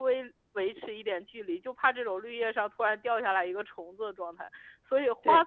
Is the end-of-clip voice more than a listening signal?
No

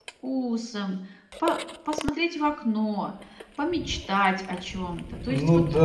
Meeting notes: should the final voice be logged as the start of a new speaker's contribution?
Yes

